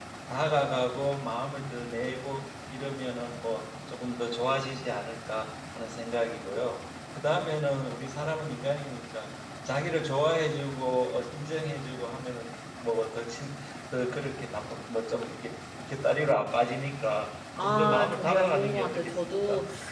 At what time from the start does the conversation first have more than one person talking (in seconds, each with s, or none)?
17.6 s